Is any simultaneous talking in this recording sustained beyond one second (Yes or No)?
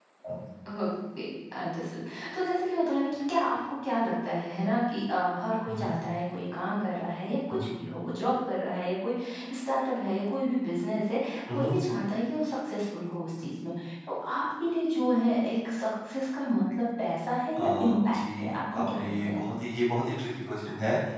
Yes